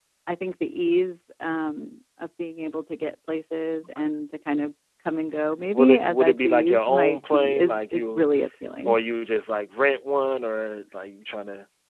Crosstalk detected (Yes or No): Yes